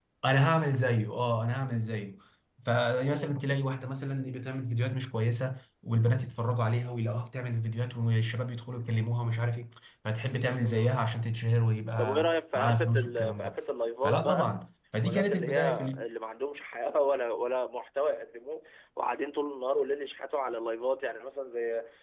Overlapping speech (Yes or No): Yes